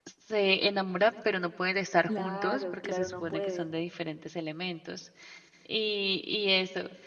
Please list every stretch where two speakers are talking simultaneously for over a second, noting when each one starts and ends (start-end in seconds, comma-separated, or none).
2.1-3.7